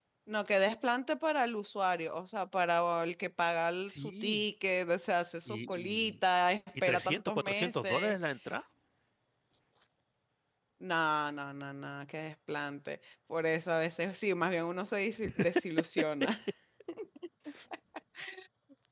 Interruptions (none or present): present